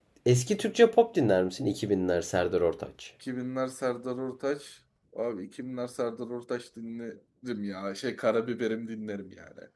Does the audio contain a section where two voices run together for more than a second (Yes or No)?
No